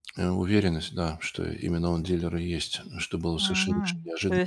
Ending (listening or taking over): taking over